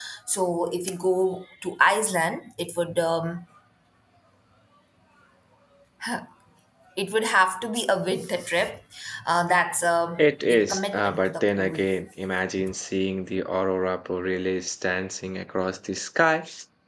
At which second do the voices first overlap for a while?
10 s

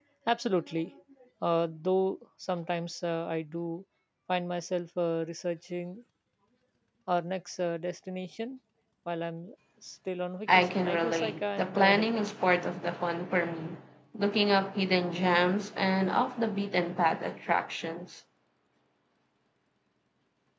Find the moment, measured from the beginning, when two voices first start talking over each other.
10 s

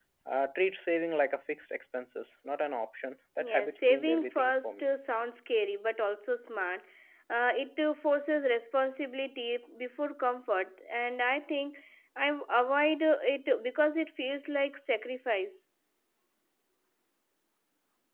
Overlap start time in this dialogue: 3 s

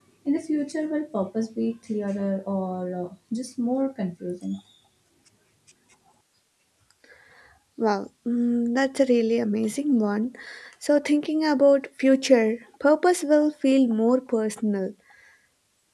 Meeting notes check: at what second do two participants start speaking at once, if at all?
none

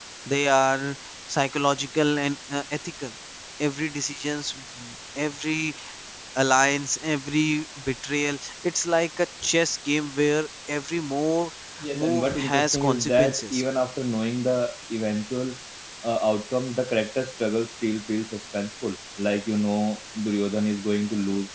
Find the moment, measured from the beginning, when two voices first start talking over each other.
12 s

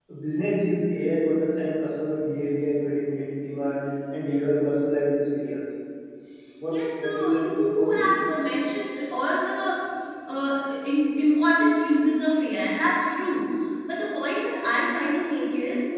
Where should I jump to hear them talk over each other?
7 s

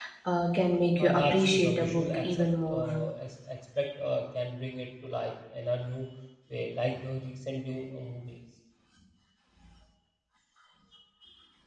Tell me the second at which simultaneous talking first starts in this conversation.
1 s

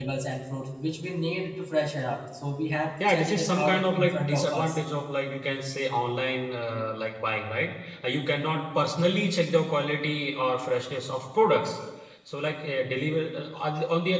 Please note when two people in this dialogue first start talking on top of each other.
3 s

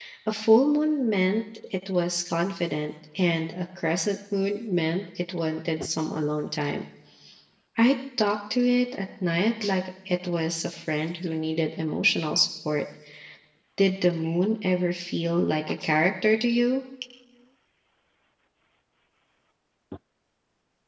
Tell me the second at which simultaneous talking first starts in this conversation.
none

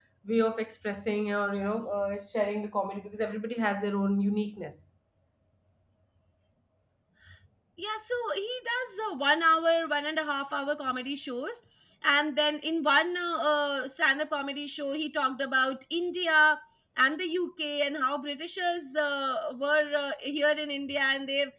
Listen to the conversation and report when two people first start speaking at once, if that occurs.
none

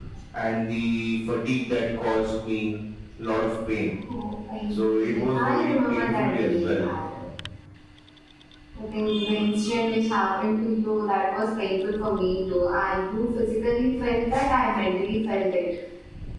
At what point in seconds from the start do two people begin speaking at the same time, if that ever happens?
5 s

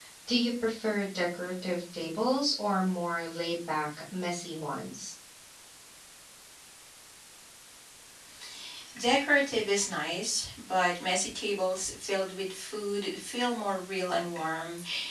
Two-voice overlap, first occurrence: none

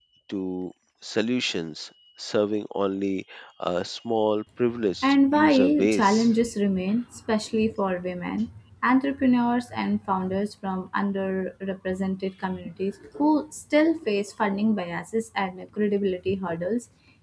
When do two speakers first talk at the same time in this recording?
5 s

